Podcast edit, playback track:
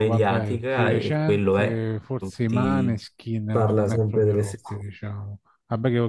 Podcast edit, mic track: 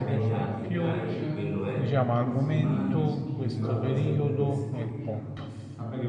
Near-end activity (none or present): present